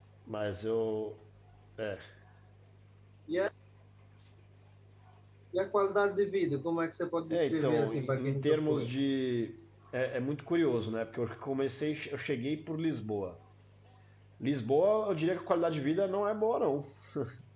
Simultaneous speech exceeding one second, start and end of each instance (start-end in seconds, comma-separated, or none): 7.3-8.9